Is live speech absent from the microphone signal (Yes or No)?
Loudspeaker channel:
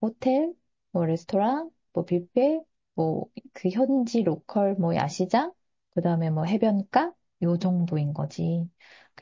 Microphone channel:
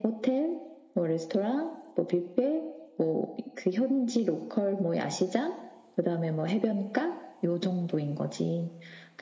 Yes